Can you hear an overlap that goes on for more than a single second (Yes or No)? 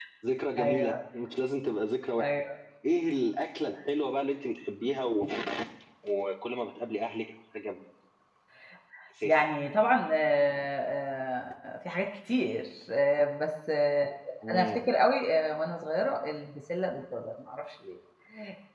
No